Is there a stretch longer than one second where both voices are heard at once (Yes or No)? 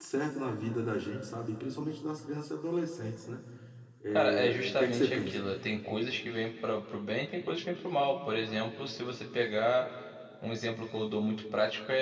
Yes